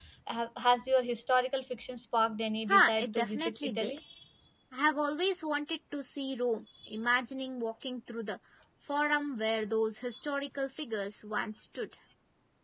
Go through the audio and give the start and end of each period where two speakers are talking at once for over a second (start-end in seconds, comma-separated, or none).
2.7-4.0